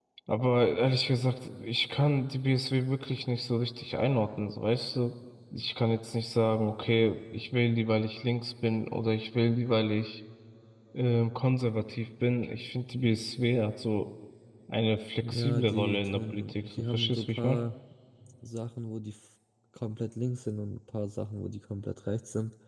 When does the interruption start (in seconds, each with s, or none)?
15.3 s